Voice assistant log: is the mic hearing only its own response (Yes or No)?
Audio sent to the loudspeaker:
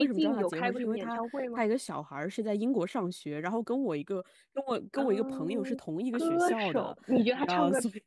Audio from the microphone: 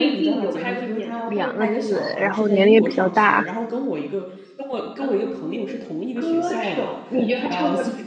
No